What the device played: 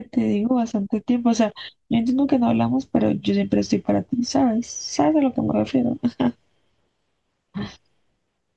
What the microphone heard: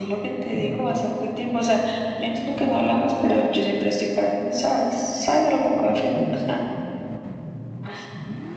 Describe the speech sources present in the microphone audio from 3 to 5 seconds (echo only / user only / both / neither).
echo only